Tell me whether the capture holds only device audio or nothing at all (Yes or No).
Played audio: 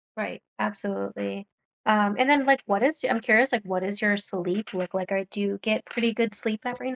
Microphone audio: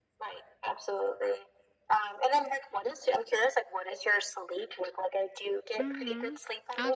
No